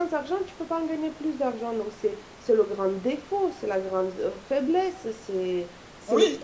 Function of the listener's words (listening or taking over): taking over